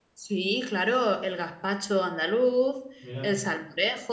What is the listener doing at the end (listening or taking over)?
listening